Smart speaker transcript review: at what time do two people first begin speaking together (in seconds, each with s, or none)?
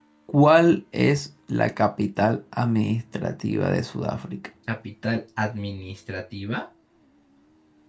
none